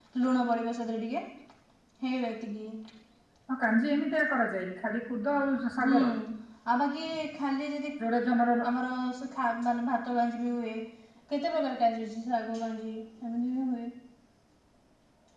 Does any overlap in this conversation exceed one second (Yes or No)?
No